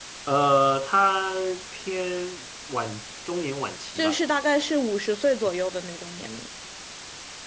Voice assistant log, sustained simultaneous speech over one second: none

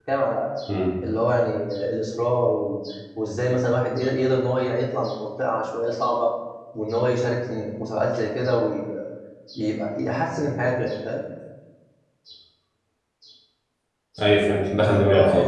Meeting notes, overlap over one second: none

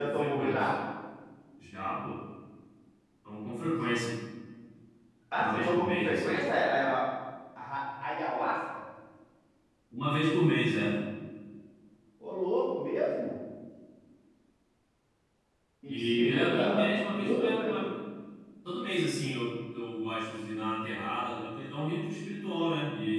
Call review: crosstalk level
present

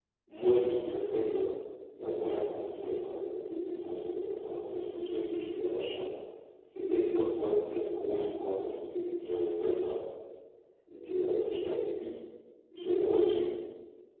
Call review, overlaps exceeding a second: present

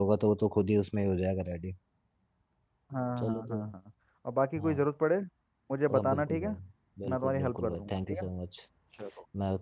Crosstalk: present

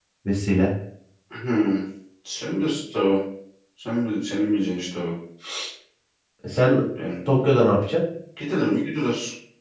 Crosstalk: none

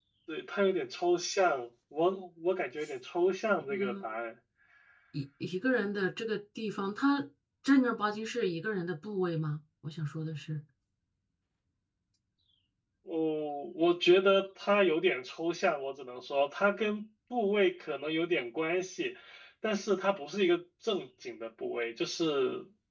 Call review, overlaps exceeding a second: none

